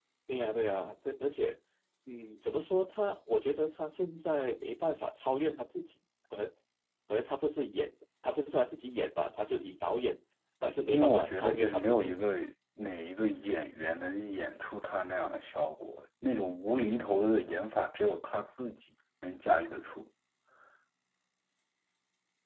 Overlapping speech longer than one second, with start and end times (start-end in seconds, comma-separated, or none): 10.9-12.2